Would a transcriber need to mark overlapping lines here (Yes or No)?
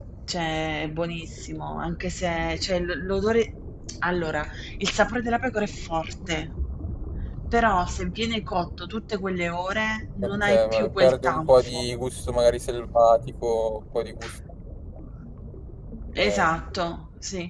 Yes